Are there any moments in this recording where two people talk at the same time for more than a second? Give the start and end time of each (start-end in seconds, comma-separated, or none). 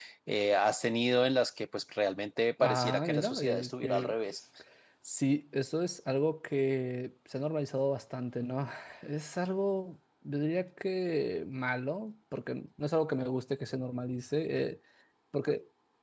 2.6-4.1